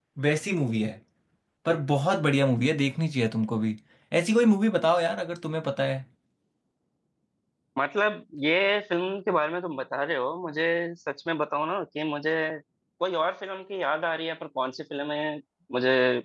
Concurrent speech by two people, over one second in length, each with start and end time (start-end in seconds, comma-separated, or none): none